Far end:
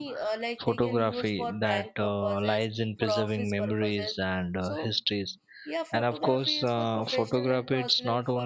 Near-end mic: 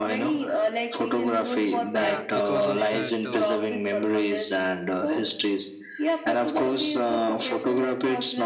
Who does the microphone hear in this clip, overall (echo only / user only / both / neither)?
both